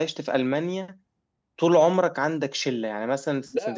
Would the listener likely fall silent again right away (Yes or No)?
Yes